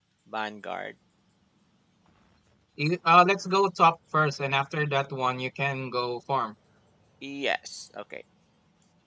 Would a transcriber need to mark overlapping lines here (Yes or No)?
No